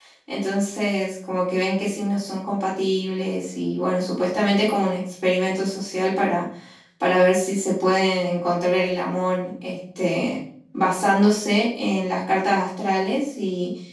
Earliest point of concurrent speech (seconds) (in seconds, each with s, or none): none